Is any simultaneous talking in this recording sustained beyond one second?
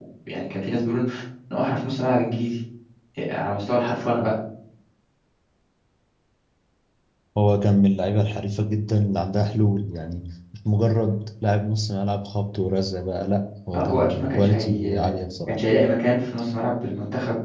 Yes, from 13.7 s

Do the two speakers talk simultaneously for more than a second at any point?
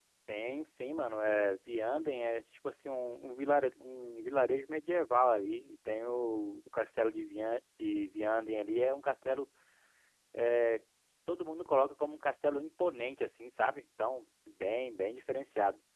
No

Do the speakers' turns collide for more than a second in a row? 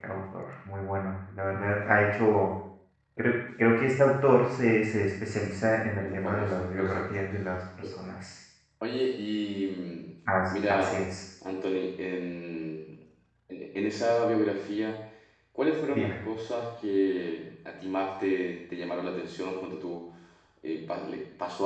Yes, from 6.0 s

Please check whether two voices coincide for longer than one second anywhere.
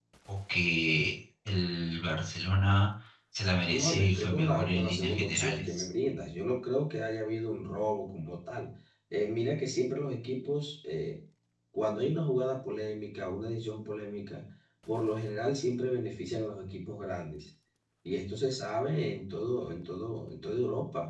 Yes, from 3.7 s

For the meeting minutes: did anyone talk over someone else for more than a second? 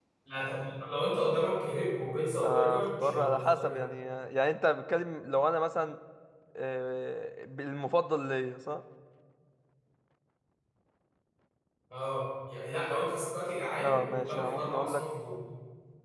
Yes, from 2.4 s

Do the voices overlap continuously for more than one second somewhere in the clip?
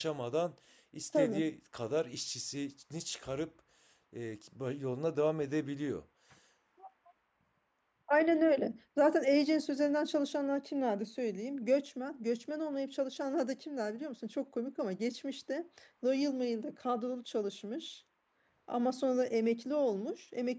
No

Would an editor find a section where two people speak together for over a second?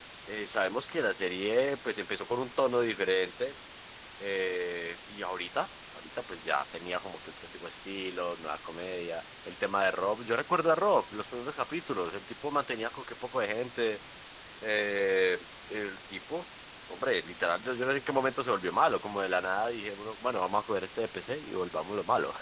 No

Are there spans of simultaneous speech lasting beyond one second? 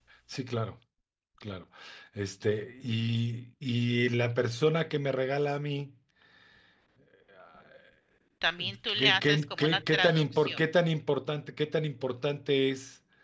Yes, from 8.9 s

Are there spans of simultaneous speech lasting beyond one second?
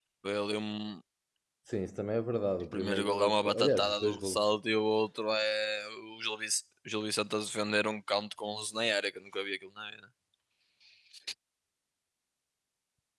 Yes, from 2.7 s

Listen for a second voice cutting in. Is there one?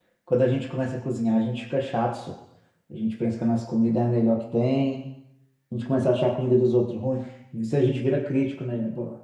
No

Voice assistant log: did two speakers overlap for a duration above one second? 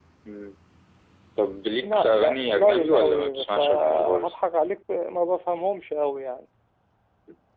Yes, from 1.8 s

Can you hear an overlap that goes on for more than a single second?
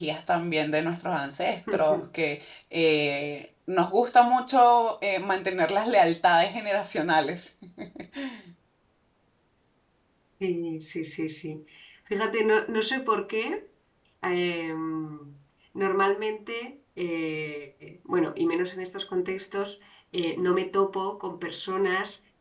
No

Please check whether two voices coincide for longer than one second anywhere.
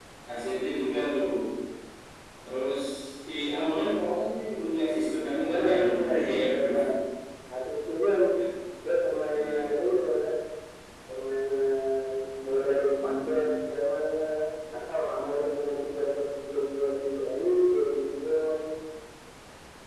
Yes, from 5.5 s

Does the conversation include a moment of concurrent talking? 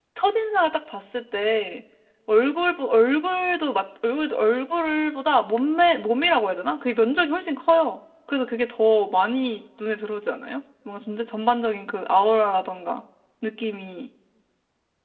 No

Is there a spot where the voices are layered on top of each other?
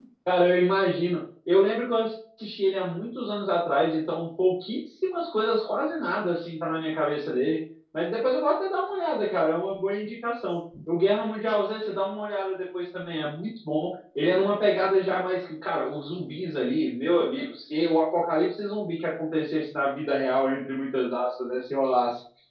No

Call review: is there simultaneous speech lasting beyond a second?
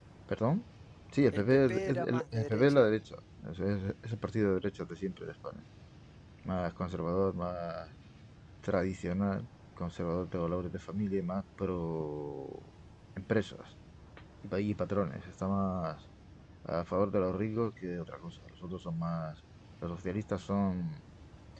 Yes, from 1.3 s

